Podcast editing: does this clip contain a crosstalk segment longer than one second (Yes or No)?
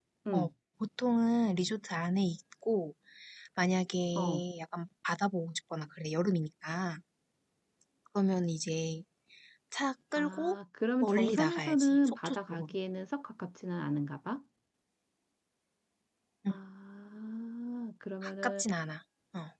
Yes